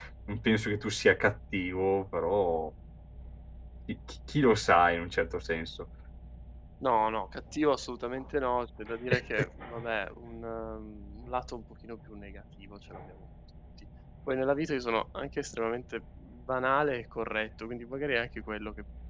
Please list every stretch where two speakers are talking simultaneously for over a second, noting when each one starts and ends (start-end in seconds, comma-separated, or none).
none